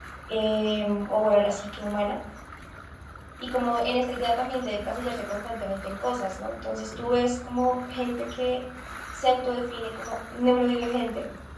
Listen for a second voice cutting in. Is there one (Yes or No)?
No